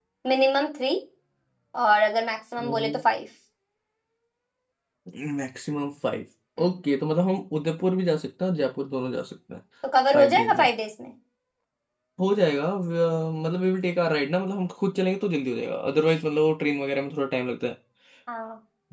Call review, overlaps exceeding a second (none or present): none